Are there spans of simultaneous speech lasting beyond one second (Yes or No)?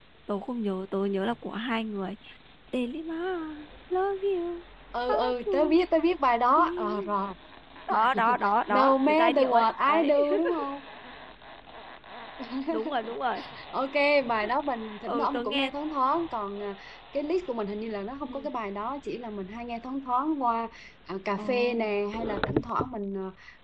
Yes